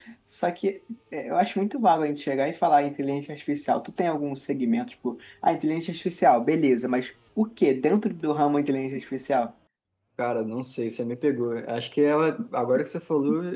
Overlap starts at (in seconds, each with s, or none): none